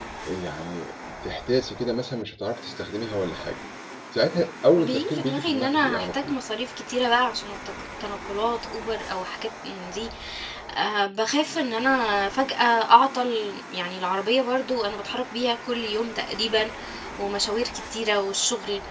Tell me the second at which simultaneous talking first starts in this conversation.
4.8 s

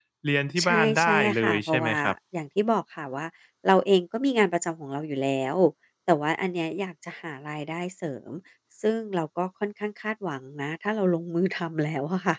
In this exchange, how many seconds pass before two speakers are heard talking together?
0.6 s

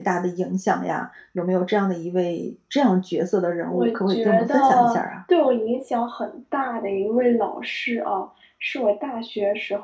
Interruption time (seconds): 3.7 s

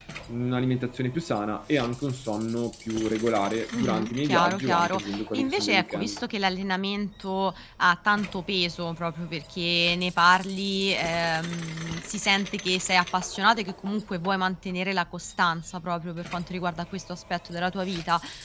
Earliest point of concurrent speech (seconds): 3.7 s

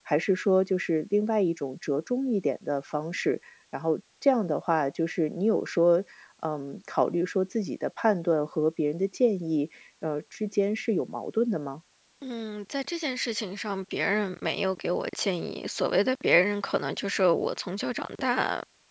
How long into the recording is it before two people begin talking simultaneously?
none

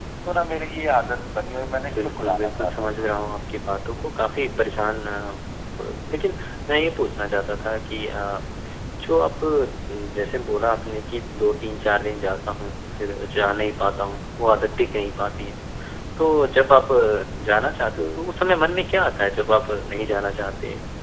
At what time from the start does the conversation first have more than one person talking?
1.9 s

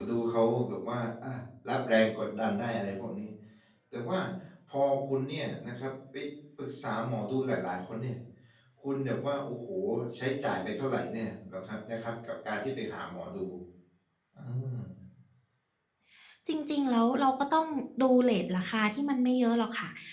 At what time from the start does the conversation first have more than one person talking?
none

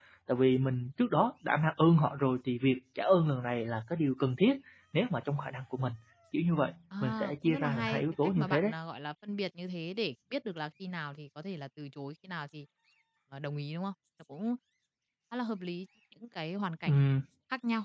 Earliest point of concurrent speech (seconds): 7.0 s

